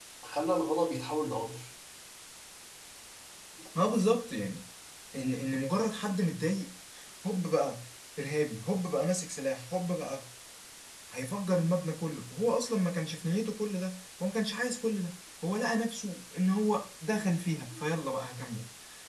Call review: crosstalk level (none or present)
none